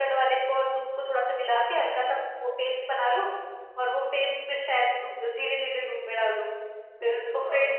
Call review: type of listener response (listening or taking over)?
listening